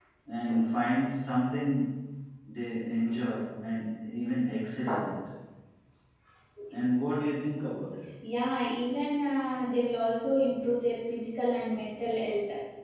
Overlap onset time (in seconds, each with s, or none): none